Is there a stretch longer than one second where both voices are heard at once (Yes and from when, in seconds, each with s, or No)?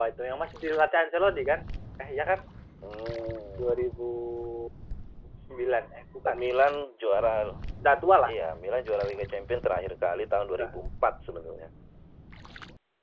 No